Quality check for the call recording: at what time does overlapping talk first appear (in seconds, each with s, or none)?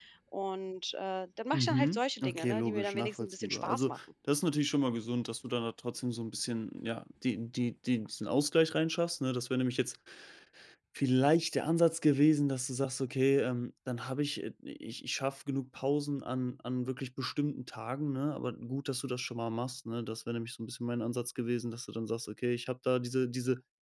1.5 s